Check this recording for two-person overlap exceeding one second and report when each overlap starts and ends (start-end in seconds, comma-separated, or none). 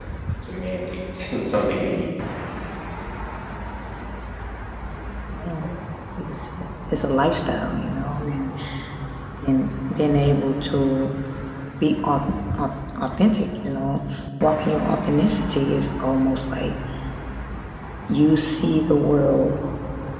none